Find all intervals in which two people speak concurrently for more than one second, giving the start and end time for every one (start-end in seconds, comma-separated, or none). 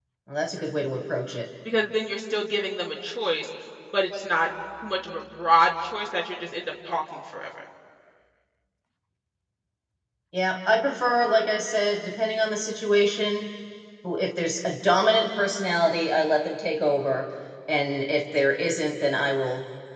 none